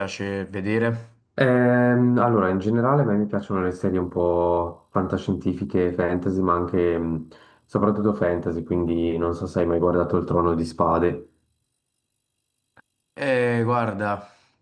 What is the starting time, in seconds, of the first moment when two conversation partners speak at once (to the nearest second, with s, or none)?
none